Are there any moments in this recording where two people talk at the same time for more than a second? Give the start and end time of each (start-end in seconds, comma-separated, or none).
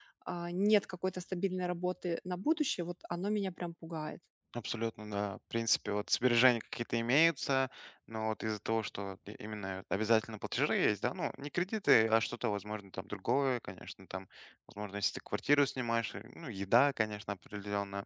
none